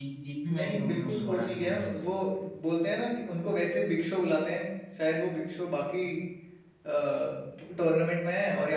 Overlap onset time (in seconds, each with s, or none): 0.6 s